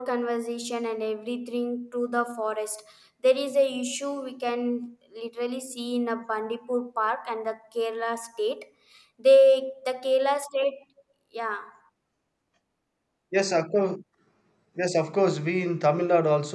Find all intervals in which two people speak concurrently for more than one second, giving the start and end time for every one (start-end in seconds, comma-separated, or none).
none